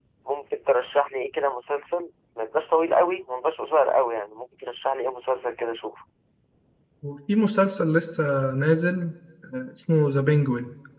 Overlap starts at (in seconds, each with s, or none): none